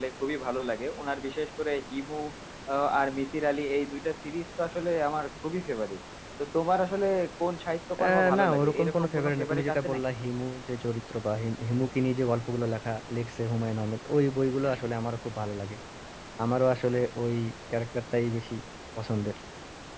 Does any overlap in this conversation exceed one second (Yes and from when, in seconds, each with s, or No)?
Yes, from 8.0 s